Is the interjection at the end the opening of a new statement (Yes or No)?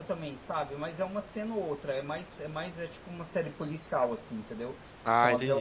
No